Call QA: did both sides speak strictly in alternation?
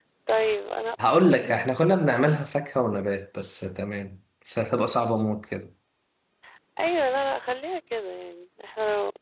Yes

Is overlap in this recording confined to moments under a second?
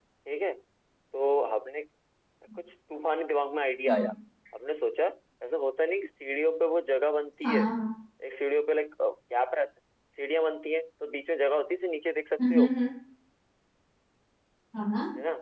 Yes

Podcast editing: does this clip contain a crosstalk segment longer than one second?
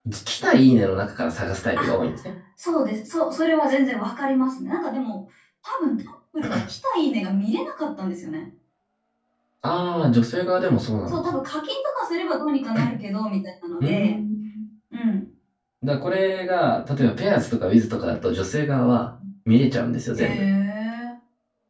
No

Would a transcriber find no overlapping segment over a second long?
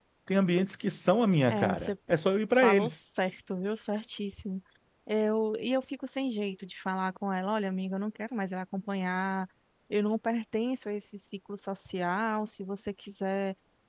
Yes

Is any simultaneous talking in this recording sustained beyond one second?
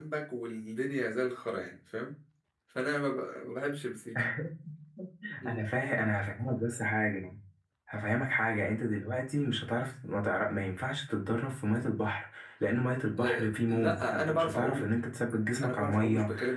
Yes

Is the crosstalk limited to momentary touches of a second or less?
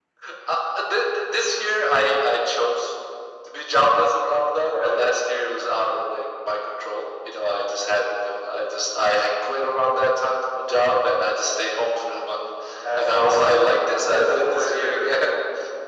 No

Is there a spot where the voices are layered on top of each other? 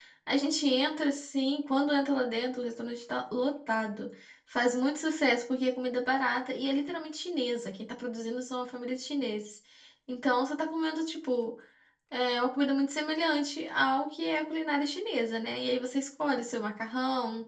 No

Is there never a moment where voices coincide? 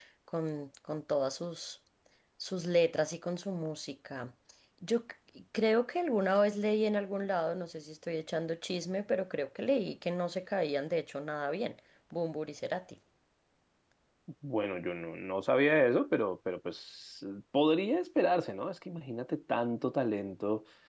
Yes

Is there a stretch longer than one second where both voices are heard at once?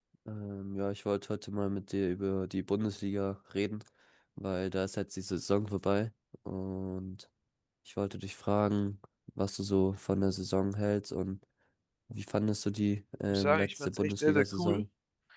Yes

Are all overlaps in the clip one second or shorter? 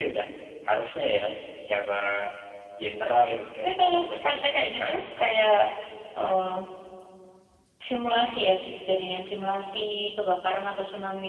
No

